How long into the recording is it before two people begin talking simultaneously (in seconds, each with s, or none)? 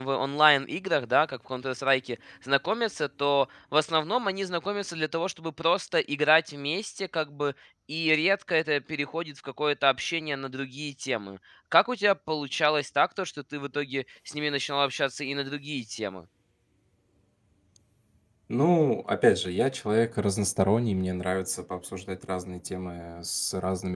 none